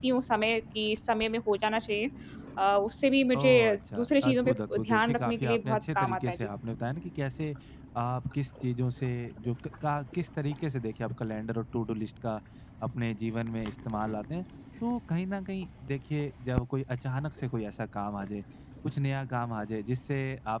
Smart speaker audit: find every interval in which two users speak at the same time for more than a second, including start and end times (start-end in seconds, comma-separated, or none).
4.0-6.5